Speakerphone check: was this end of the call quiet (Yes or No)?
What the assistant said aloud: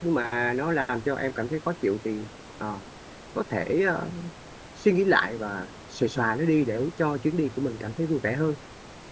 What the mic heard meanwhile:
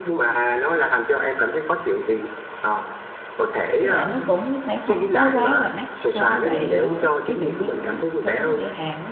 No